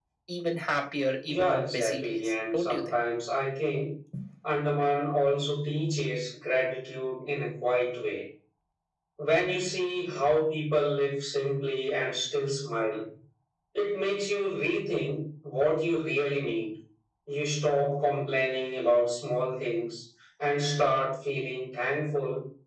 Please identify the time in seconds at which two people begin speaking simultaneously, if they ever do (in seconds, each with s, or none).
1.3 s